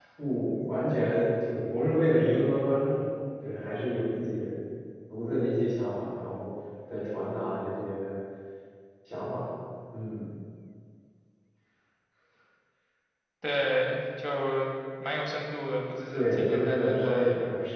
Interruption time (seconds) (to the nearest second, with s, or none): 16 s